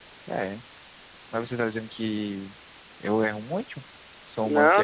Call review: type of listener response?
taking over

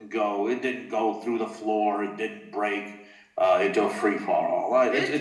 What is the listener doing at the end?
taking over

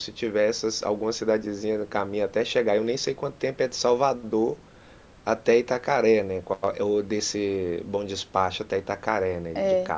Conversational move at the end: taking over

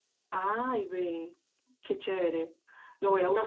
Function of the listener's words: taking over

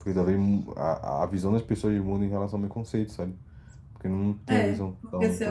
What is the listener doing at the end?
taking over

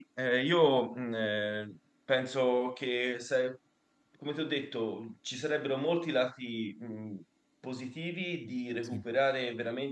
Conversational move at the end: listening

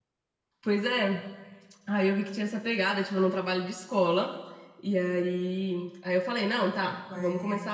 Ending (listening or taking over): listening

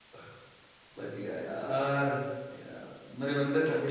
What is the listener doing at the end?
taking over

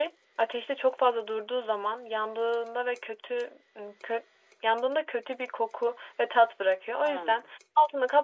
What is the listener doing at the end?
listening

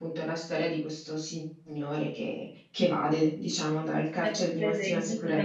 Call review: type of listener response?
taking over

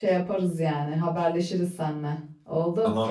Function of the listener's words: taking over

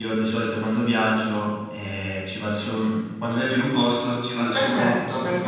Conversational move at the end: taking over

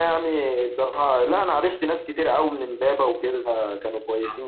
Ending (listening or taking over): taking over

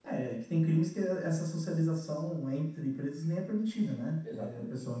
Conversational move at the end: listening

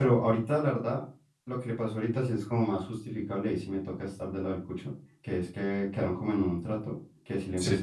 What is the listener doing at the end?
listening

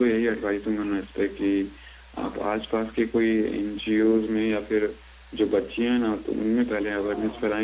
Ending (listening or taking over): listening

